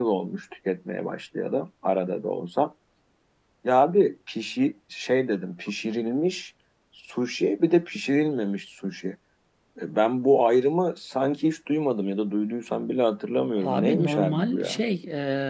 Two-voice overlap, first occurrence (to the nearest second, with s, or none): 14 s